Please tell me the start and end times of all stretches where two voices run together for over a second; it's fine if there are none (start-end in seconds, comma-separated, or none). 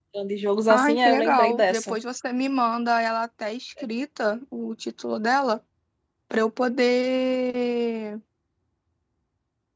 0.7-2.0